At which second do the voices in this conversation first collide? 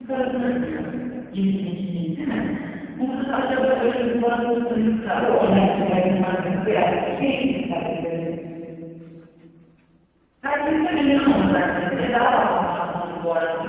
5.1 s

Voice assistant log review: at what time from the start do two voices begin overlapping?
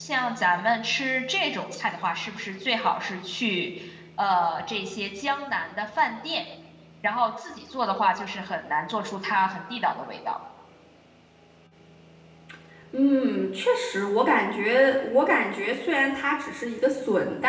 none

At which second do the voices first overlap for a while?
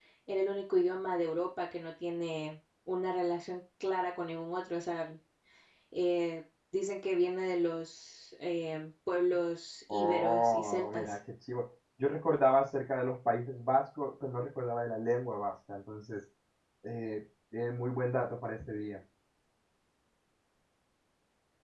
9.9 s

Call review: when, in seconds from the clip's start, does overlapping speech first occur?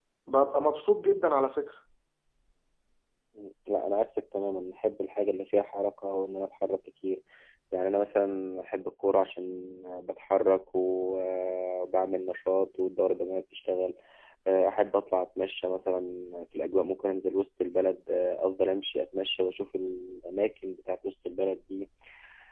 none

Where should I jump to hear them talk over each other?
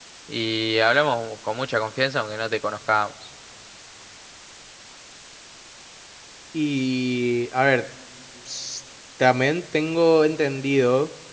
none

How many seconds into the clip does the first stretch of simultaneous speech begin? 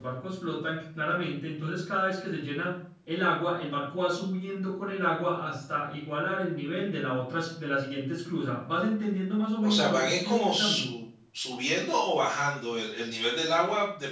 9.6 s

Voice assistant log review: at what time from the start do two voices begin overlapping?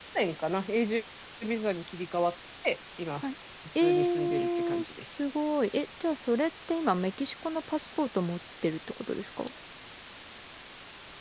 3.8 s

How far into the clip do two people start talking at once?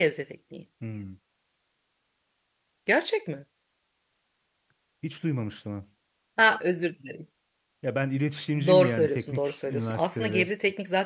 8.7 s

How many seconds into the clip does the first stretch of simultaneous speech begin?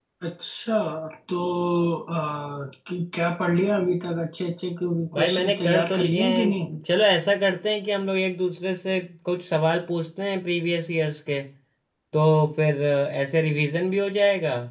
5.1 s

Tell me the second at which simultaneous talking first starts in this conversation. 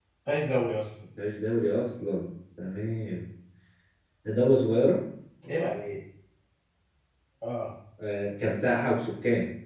none

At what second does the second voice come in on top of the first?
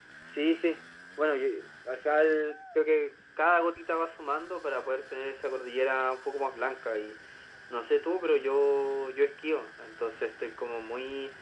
none

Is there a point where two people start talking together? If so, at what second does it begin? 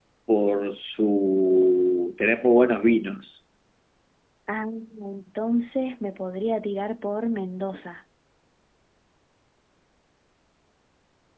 none

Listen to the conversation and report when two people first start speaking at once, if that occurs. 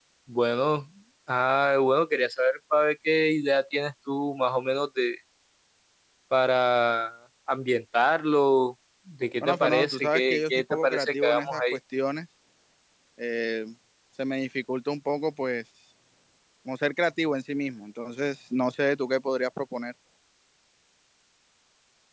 9.4 s

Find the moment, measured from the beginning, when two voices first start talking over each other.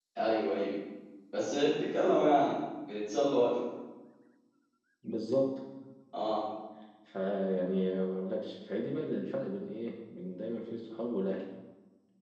none

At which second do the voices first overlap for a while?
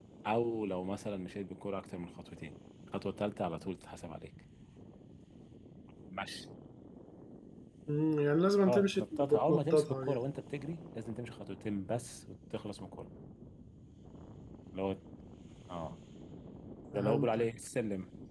8.7 s

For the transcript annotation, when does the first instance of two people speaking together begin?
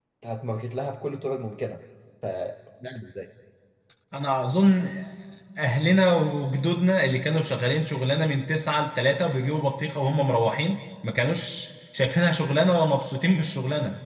none

